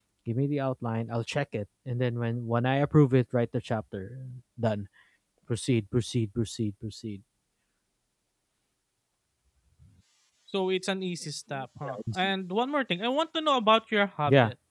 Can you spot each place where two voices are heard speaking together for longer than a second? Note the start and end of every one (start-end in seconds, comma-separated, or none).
none